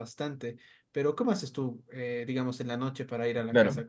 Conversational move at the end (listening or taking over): listening